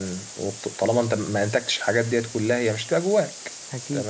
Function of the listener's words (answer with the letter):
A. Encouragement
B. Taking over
A